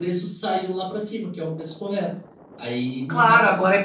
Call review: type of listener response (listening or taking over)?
taking over